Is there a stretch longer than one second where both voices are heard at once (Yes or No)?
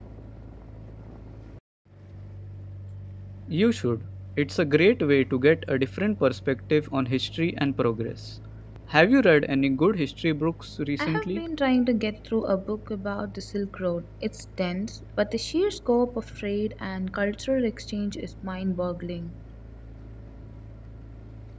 No